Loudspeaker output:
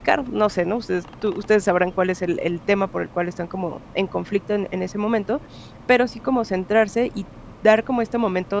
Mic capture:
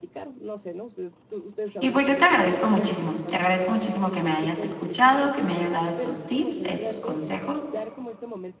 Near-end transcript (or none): Y pues yo te agradezco muchísimo, te agradezco muchísimo que me hayas escuchado, que me hayas dado estos tips, estos consejos